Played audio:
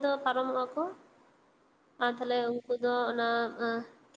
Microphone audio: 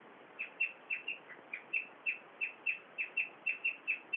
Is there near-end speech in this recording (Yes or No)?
No